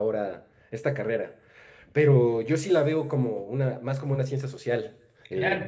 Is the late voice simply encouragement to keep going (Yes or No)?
No